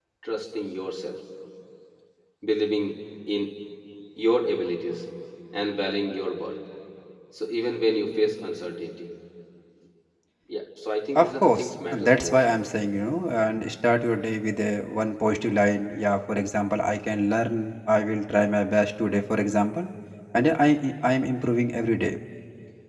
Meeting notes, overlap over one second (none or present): present